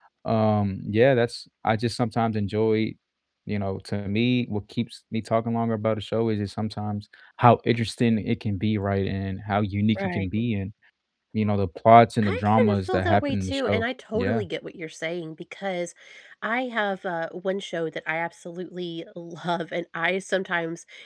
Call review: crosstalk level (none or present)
present